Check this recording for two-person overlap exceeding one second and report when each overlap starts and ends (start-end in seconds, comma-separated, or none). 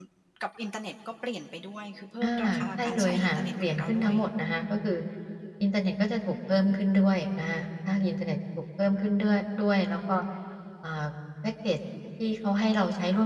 2.2-4.1